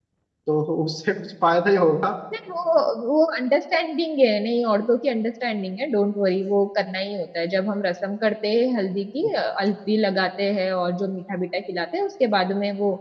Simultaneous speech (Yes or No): No